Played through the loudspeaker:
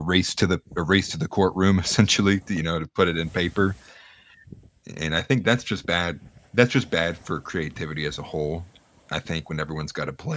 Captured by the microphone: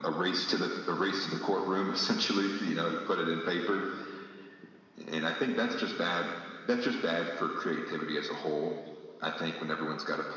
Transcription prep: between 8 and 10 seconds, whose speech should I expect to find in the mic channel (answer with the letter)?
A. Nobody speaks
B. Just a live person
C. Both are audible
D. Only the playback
D